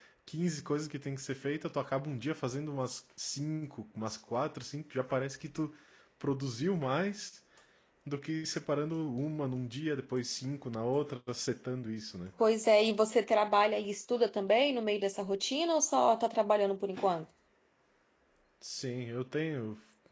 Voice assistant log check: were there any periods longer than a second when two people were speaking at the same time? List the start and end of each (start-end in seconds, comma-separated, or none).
none